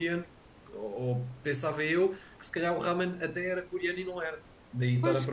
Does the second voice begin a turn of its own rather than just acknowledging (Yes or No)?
Yes